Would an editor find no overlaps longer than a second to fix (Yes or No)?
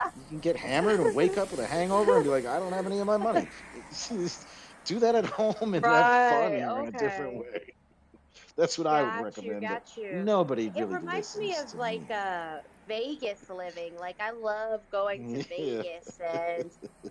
No